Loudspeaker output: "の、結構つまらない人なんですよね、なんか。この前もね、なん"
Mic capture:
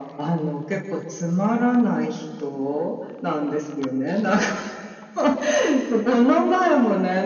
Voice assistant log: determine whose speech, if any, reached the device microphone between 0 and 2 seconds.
echo only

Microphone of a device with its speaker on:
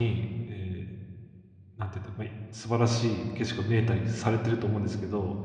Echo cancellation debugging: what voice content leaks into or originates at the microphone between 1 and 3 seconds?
user only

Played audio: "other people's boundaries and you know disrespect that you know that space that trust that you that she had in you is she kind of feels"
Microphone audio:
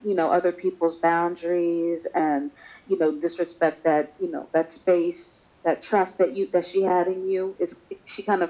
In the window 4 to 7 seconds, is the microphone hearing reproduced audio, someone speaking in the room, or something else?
echo only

